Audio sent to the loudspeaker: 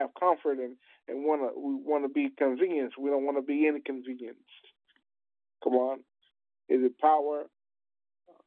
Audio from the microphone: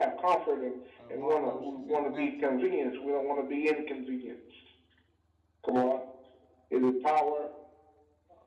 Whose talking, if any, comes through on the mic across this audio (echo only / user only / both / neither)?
both